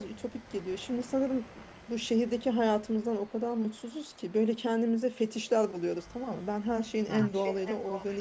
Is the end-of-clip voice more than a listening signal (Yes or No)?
No